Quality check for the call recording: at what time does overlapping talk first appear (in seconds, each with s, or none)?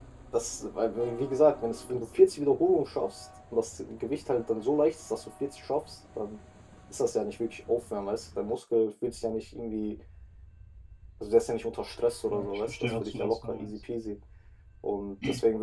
12.3 s